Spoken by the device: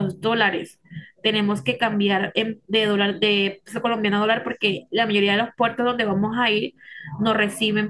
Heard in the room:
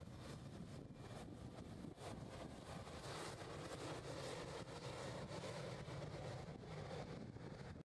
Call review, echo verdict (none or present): none